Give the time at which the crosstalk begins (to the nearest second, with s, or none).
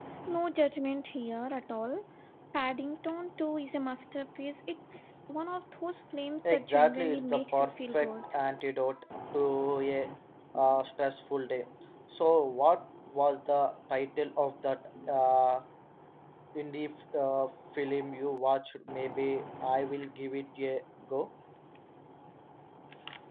6 s